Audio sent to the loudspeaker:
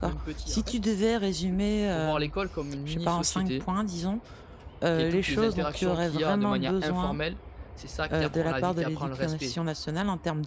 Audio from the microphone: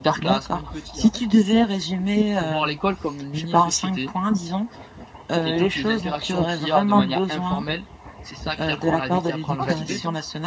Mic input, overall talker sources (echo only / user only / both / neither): both